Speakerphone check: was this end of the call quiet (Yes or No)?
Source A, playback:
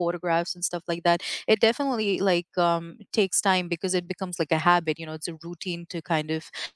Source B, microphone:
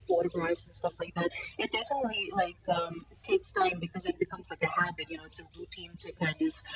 Yes